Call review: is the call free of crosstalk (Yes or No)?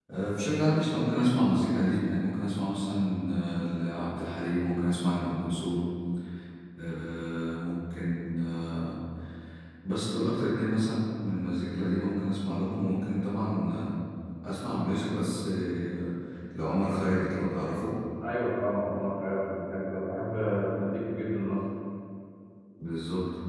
Yes